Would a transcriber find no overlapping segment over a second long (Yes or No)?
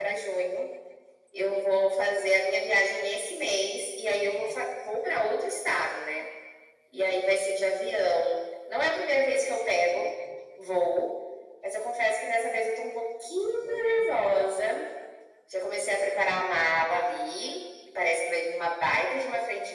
Yes